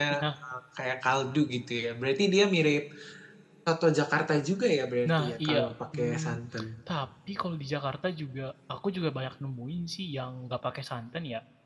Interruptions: present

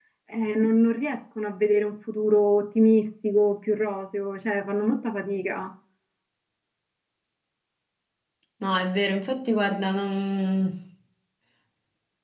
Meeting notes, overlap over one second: none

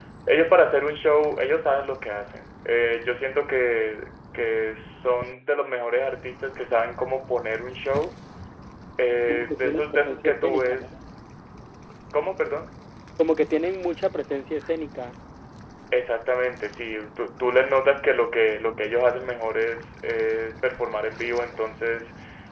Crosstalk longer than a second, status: present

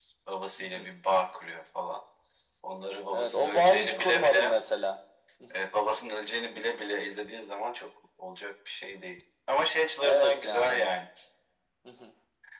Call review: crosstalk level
present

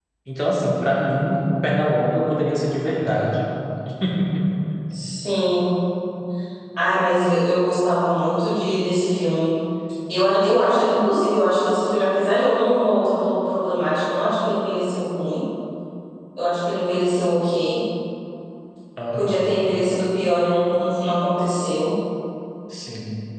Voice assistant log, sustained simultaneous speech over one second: none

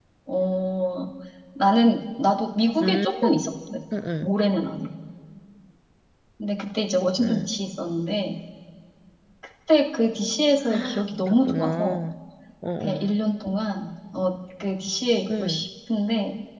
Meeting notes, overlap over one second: present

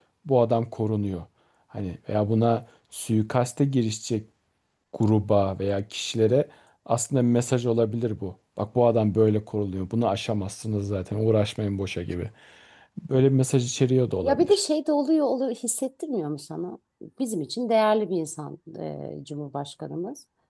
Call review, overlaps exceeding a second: none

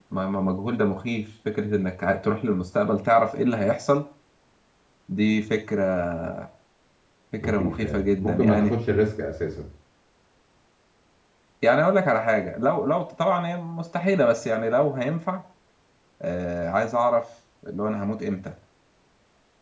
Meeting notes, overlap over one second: present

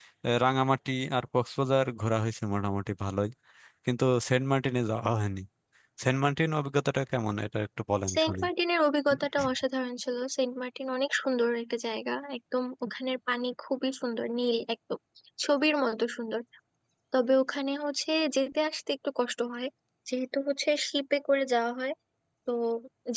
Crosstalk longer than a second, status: none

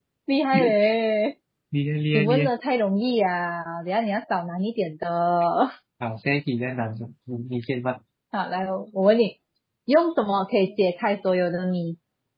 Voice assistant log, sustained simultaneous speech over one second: none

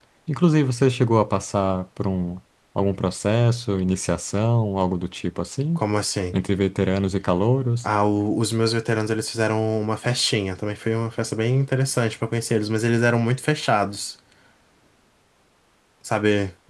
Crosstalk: none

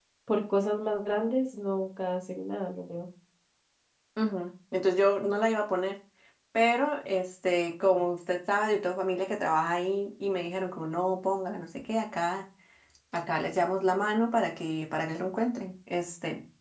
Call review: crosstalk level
none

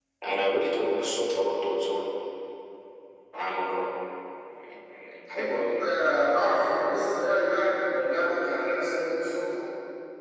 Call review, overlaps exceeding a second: none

